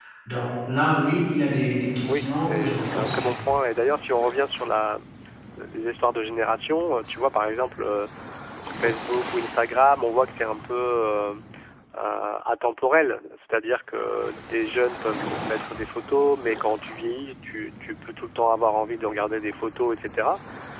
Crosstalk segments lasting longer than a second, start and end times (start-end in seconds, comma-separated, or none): 2.0-3.3